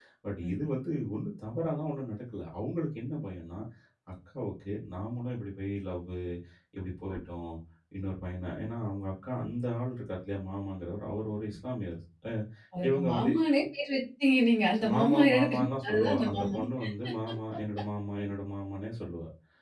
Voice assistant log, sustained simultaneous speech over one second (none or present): present